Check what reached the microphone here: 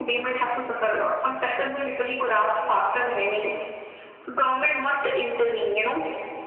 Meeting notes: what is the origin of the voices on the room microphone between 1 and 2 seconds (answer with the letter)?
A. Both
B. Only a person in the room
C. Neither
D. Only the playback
D